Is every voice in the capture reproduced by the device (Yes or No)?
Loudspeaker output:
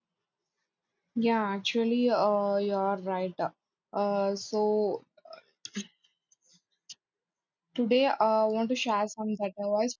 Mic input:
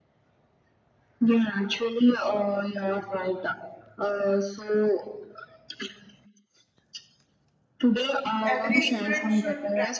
No